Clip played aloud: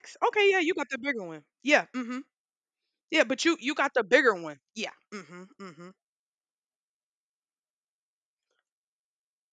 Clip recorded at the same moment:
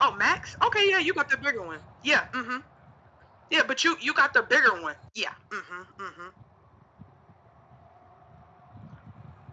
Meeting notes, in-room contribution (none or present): none